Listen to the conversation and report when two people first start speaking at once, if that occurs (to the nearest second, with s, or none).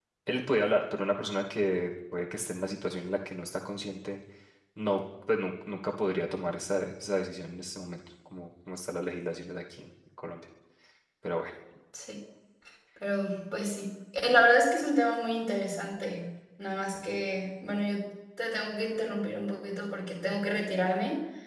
none